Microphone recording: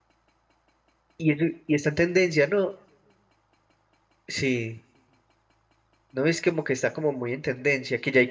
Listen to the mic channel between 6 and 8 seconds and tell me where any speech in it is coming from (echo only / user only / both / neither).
user only